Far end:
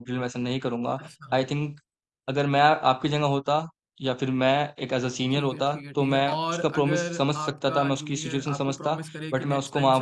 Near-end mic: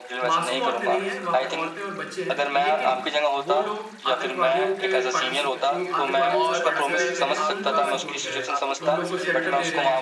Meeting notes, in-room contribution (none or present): present